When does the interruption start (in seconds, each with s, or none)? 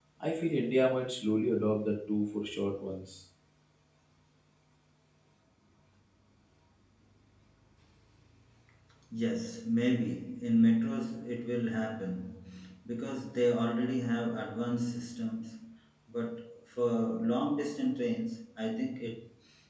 none